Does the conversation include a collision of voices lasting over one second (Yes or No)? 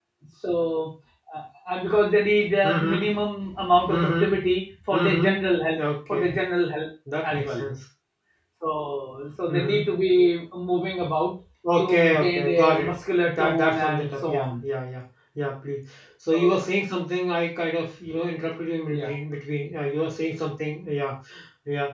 Yes